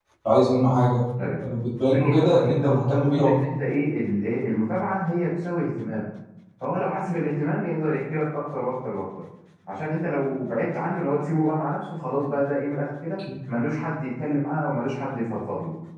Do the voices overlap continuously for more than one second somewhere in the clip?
Yes, from 1.9 s

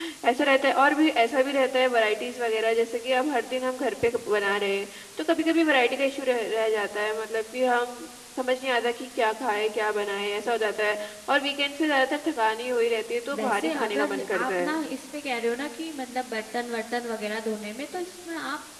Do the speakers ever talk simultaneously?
Yes, from 13.3 s

